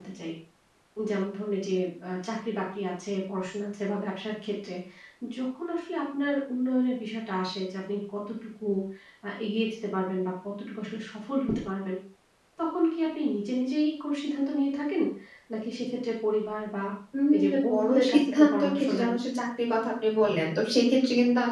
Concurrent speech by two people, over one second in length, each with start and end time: 17.3-19.1

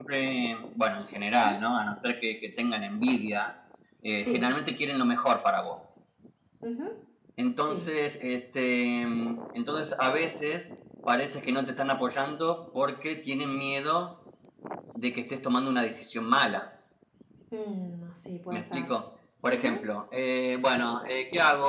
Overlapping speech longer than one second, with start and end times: none

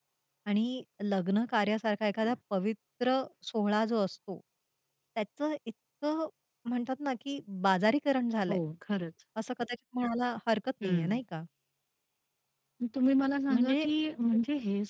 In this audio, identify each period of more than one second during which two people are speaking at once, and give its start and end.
none

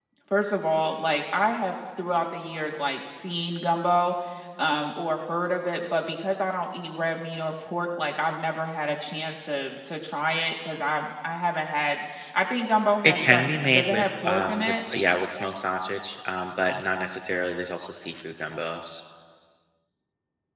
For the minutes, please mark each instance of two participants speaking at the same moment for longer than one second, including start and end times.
13.0-14.8

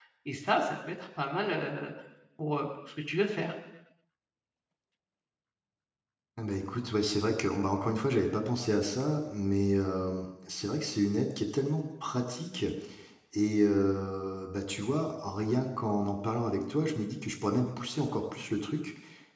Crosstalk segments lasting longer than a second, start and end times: none

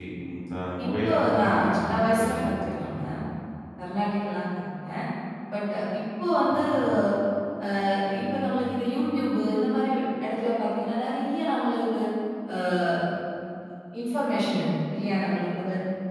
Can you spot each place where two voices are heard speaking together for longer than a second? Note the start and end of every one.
0.8-2.9

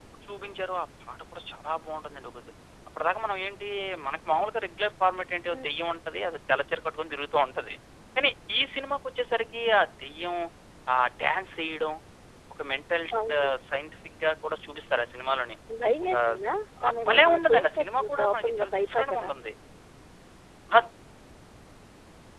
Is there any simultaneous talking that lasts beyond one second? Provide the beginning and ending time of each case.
16.9-19.3

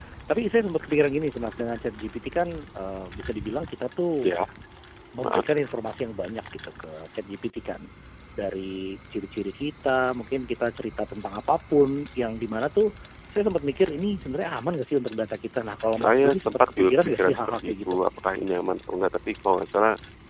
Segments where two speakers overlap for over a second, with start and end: 16.0-18.0

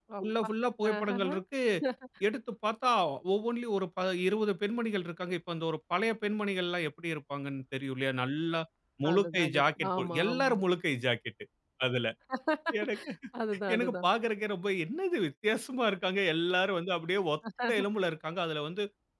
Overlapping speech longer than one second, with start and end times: 9.1-10.5

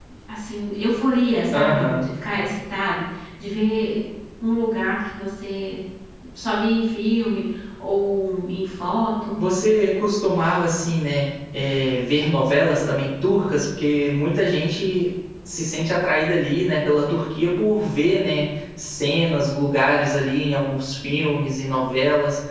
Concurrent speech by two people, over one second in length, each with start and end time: none

